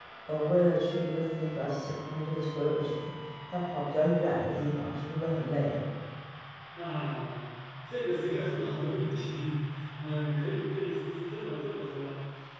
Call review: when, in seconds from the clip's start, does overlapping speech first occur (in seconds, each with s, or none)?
none